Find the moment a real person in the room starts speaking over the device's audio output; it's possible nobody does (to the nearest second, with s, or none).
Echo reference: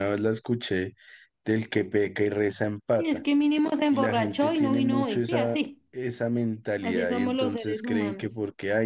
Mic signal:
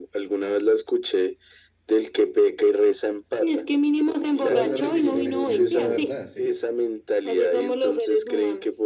4 s